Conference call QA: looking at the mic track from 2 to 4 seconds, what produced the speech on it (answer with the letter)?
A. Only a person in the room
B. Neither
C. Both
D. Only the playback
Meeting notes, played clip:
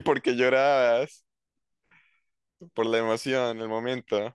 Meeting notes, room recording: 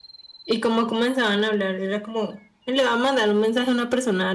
A